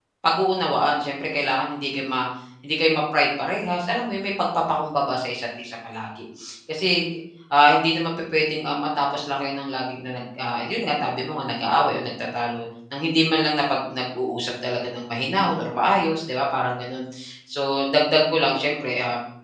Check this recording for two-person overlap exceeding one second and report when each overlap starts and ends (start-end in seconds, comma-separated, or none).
none